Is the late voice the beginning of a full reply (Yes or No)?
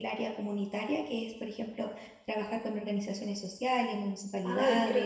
Yes